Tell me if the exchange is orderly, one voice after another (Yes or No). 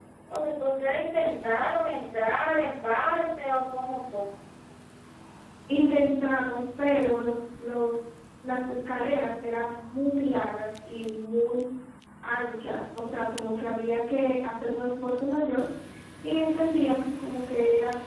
Yes